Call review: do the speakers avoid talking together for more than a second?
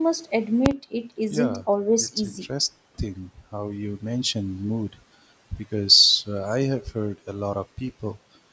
Yes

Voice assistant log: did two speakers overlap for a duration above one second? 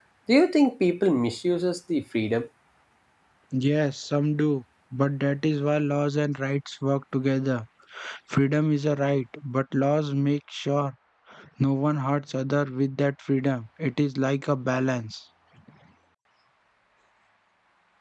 No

